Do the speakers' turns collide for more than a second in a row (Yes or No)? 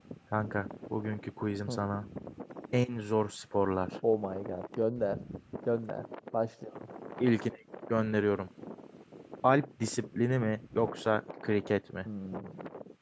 No